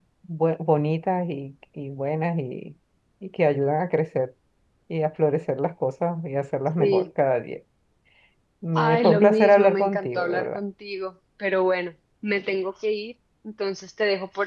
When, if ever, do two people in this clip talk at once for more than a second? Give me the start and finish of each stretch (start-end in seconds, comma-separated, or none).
8.8-10.6